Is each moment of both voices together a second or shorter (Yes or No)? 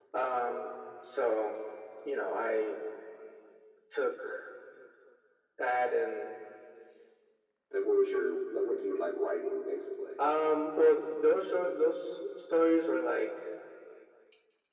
Yes